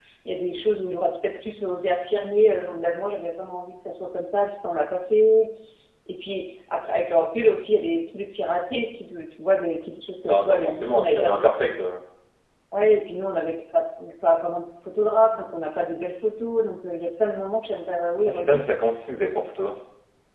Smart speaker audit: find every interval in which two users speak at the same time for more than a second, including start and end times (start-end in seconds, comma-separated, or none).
10.3-11.5